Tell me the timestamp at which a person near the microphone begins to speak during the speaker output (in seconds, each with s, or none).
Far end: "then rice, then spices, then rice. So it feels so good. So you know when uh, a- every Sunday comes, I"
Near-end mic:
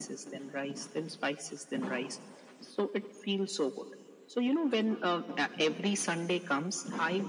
none